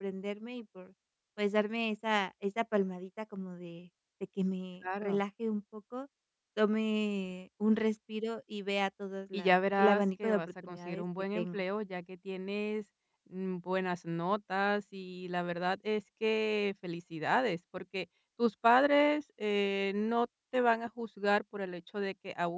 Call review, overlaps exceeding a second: present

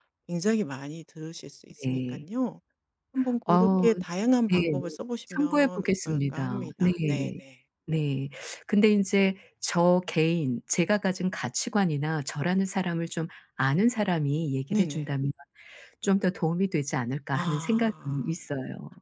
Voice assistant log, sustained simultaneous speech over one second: present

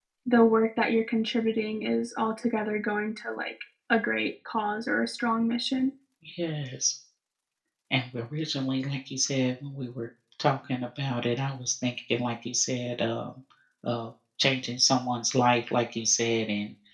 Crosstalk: none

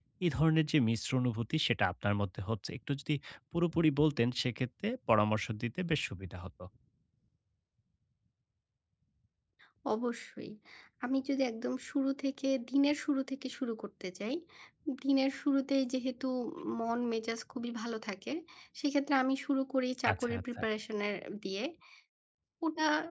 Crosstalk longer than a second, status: none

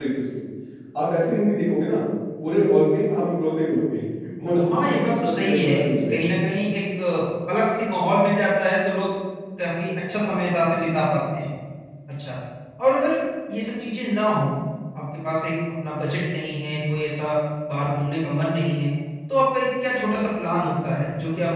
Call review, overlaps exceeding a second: present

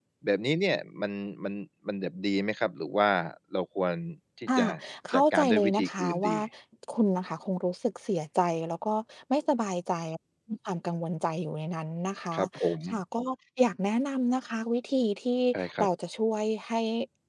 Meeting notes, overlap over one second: present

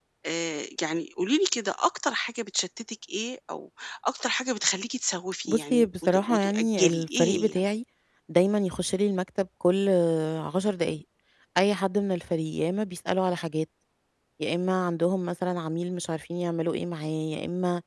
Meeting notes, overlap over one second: present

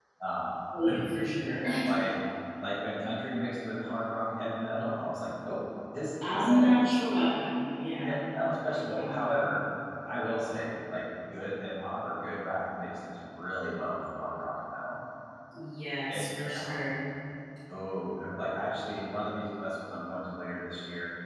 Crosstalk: present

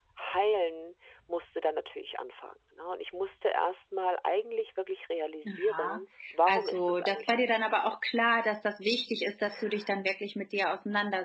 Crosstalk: present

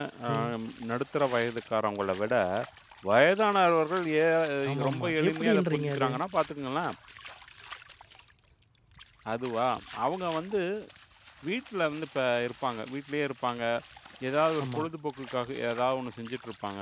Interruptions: present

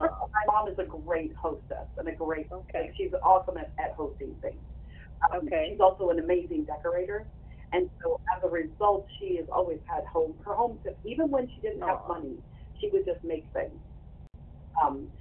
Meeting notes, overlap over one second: none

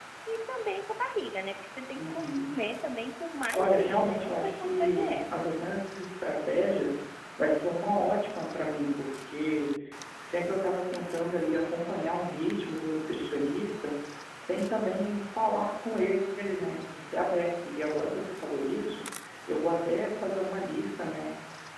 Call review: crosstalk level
present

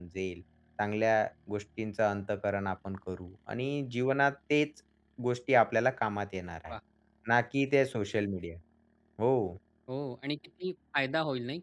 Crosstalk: none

